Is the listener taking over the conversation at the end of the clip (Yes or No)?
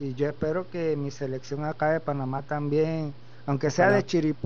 No